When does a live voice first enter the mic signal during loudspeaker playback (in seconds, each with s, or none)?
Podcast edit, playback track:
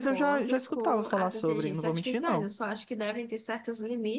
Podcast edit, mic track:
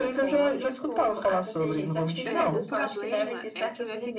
2.3 s